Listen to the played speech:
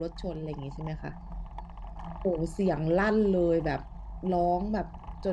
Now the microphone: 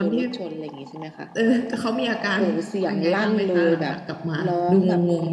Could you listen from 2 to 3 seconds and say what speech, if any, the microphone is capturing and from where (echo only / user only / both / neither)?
both